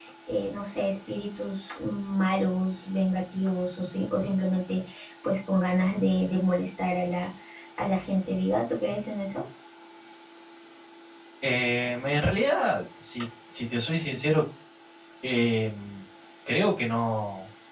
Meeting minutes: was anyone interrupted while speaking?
No

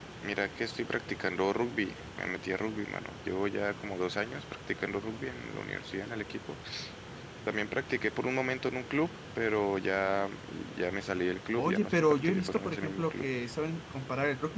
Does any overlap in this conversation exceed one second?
Yes, from 11.6 s

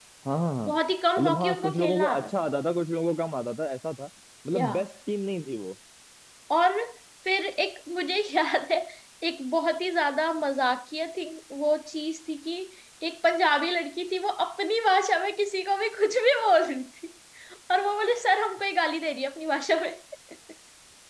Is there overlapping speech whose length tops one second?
Yes, from 1.2 s

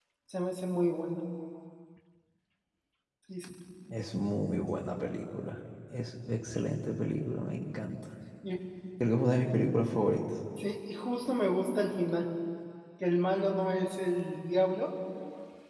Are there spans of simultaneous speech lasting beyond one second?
No

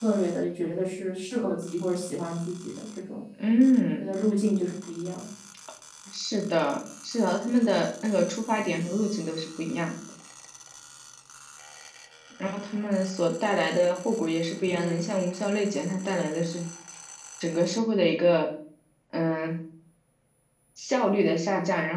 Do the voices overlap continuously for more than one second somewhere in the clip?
No

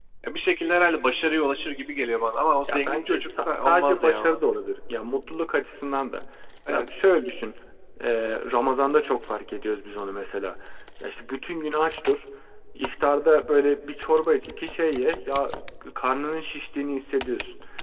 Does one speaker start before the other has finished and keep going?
Yes, from 2.7 s

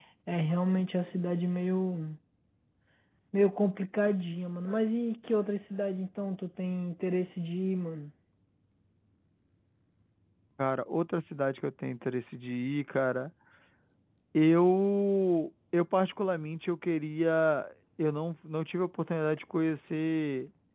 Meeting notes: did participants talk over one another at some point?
No

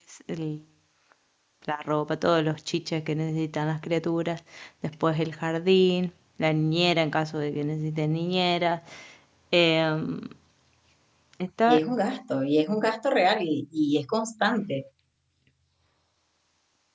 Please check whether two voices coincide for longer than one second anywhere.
No

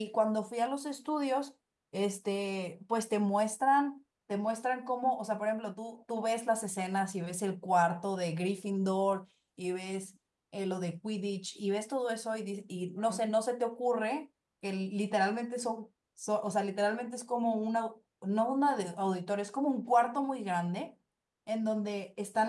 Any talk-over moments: No

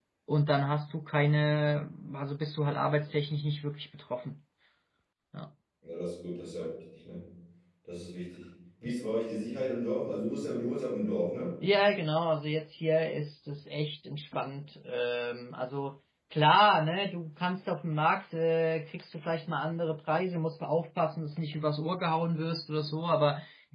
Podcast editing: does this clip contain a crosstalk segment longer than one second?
No

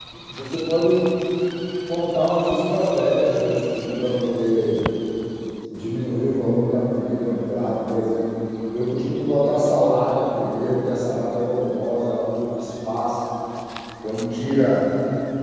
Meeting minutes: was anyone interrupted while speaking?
No

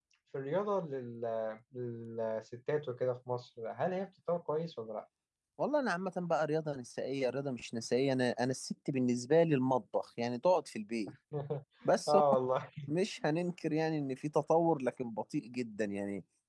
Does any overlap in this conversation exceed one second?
No

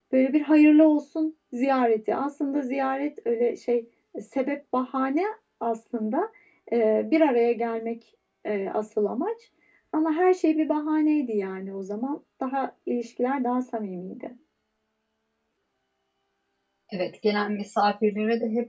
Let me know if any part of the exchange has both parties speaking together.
No

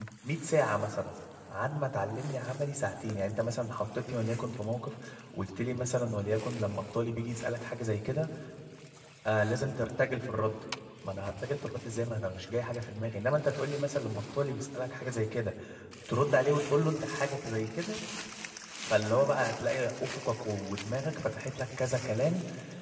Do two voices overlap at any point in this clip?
No

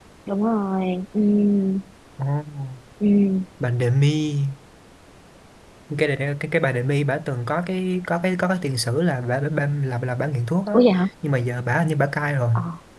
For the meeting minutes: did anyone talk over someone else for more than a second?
No

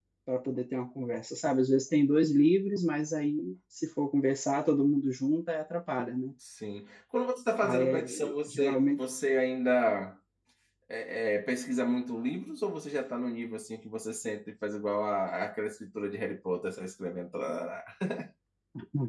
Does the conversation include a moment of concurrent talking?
Yes, from 7.6 s

